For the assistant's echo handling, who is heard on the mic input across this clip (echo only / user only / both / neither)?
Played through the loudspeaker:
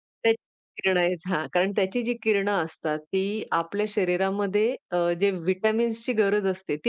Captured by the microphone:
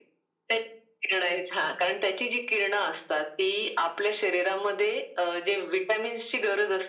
echo only